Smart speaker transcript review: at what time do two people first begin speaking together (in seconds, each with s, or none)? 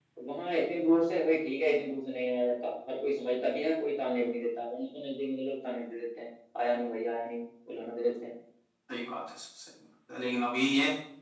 none